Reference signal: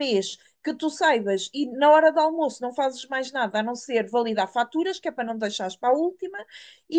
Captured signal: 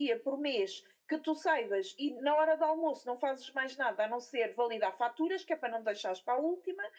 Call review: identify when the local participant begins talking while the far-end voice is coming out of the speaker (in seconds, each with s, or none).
none